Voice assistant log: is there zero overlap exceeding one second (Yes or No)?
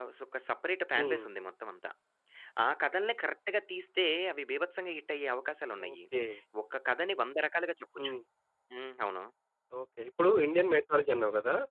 Yes